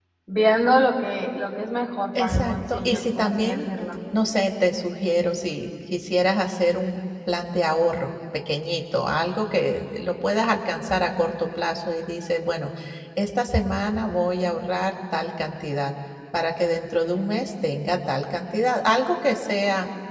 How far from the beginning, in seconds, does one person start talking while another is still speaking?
2.1 s

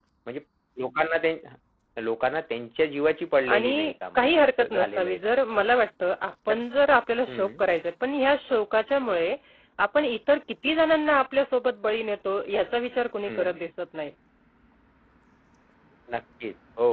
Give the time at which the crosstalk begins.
3.5 s

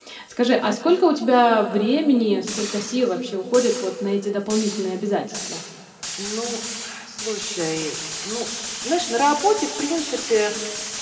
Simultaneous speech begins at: none

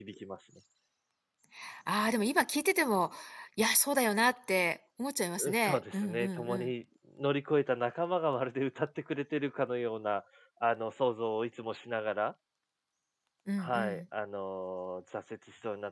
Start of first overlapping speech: 5.4 s

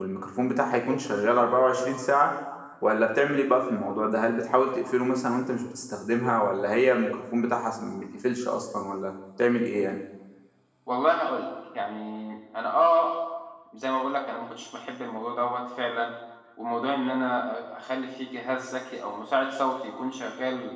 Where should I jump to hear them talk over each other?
none

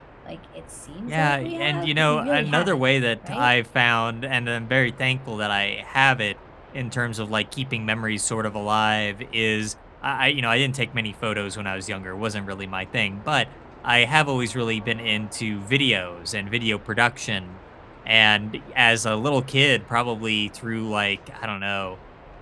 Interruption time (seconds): 1.1 s

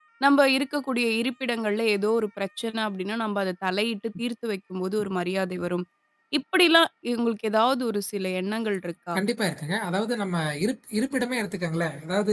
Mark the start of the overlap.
none

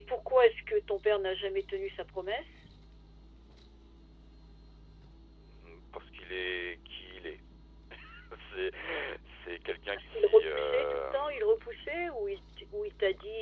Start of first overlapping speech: 10.0 s

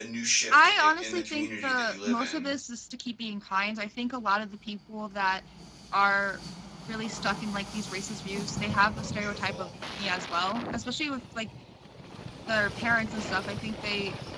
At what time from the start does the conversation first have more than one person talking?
0.5 s

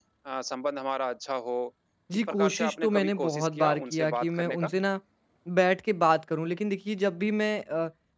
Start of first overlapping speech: 2.3 s

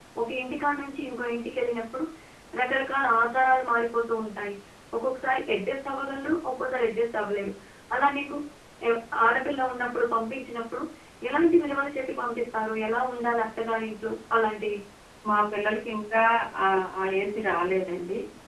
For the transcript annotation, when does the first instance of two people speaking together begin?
none

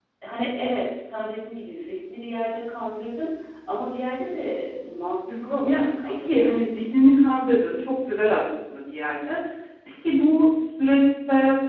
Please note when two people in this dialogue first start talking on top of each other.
5.3 s

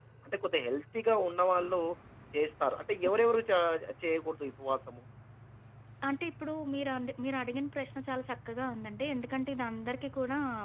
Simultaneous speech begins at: none

